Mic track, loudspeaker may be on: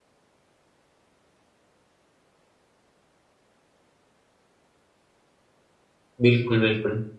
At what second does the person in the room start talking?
6 s

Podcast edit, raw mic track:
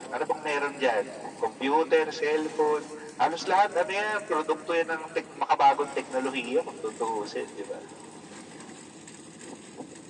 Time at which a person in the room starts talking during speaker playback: none

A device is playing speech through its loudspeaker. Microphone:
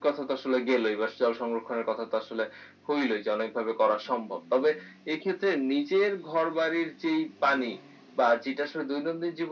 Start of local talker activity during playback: none

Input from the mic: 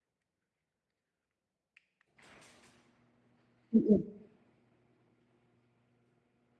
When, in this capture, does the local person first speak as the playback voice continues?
4 s

